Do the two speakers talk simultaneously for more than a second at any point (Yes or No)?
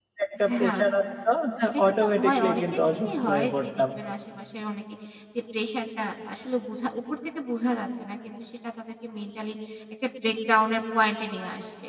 Yes